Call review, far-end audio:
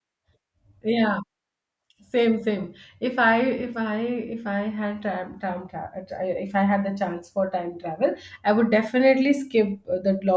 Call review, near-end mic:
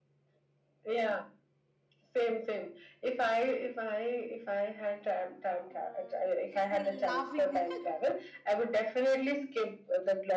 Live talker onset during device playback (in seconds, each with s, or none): 5.7 s